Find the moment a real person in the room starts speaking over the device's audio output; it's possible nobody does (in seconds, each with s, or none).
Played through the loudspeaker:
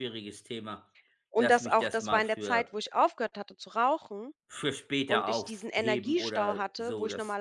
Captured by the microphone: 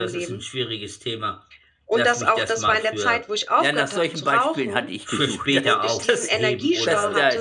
3.6 s